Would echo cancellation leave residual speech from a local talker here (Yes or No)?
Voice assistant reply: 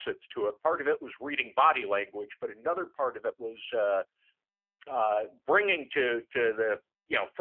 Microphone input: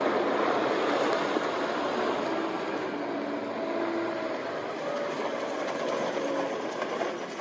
No